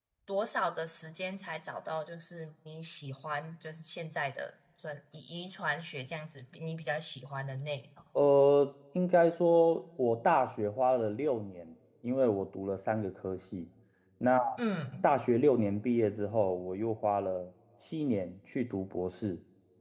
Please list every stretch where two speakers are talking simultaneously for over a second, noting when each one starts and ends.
none

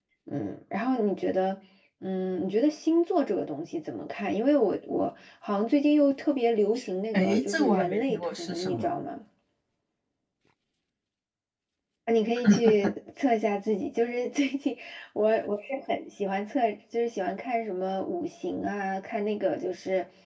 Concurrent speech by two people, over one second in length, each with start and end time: 7.1-8.9

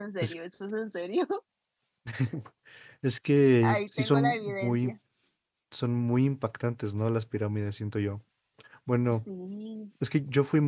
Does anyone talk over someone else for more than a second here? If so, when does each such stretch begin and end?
3.6-4.9

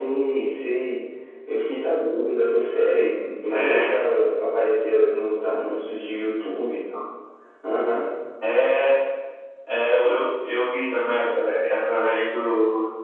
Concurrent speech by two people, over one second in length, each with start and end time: none

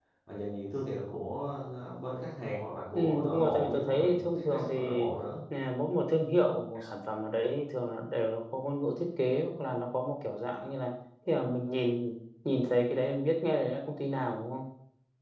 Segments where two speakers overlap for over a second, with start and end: 3.0-4.8

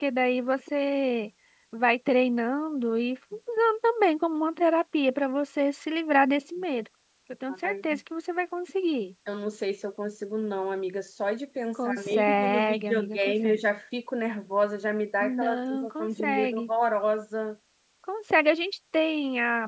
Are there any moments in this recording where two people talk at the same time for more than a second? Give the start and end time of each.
11.8-13.6, 15.2-16.7

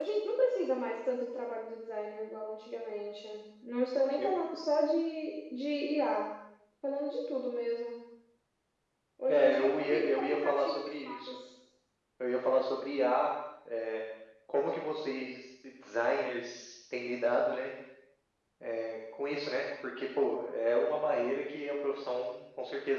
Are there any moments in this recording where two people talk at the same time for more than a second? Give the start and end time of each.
9.3-11.3

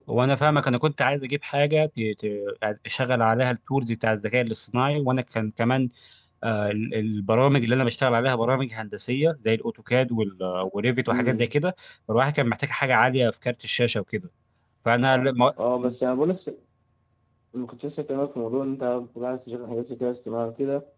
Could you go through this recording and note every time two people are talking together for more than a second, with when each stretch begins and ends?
none

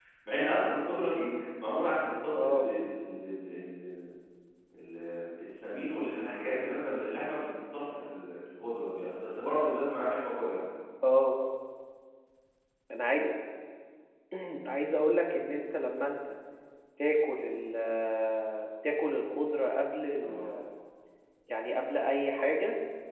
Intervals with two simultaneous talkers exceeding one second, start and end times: none

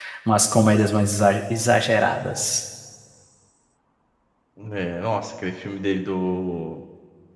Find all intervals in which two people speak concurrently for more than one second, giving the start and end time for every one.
none

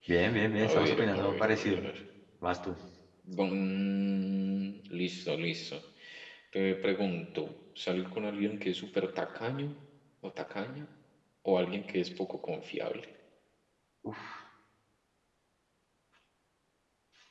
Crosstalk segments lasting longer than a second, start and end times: 0.6-1.8

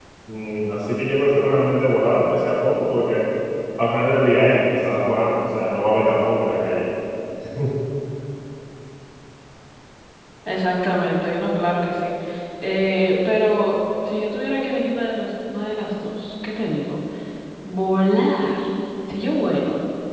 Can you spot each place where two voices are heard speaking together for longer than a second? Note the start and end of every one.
none

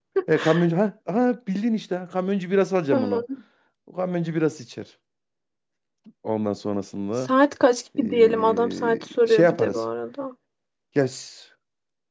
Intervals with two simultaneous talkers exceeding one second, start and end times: 8.0-9.8

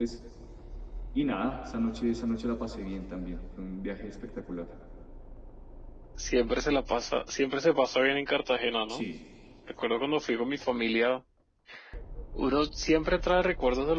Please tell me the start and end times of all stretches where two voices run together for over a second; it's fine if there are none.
none

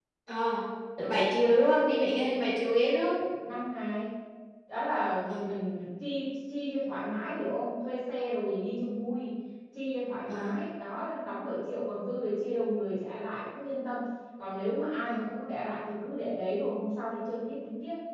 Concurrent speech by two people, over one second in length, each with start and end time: none

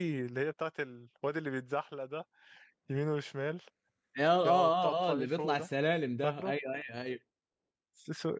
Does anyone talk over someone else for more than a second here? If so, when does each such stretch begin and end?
4.4-5.7

